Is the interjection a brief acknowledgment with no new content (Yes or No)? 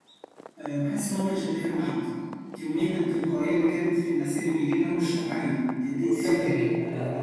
No